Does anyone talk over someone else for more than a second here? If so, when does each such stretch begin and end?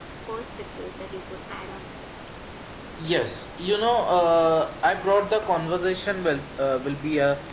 none

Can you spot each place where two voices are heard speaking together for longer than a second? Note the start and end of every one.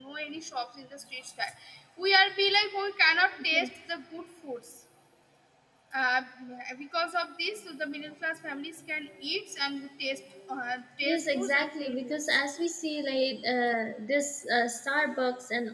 11.0-12.4

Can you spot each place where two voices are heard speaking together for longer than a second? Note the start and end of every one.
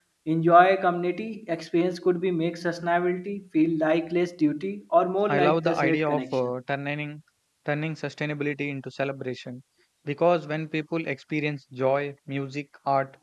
5.3-6.5

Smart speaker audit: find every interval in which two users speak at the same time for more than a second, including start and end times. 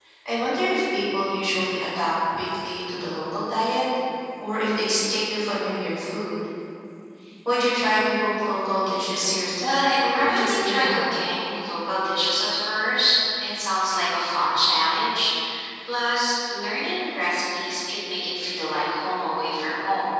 9.7-11.0

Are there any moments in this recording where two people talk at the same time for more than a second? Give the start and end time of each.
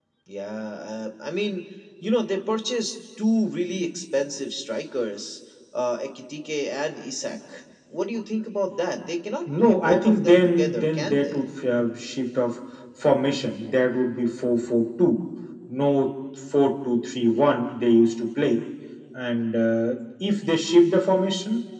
9.6-11.4

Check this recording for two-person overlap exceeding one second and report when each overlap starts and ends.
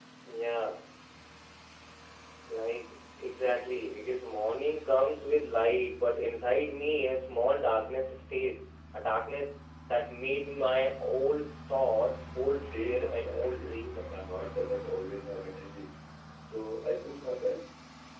12.6-14.2

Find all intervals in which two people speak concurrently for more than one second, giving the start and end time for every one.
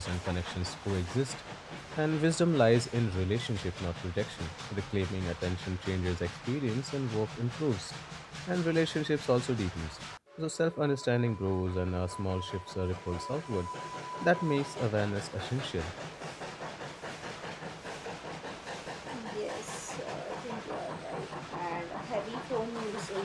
none

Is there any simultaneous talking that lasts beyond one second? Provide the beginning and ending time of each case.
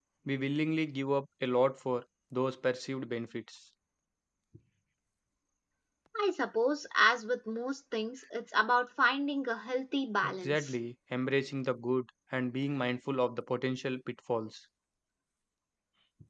none

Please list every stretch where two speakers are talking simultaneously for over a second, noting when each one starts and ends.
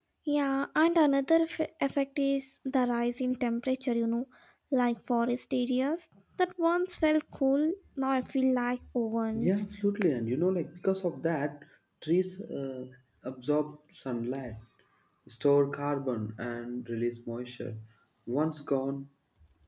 none

